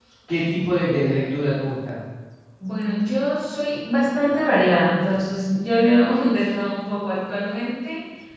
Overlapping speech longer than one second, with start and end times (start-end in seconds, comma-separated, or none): none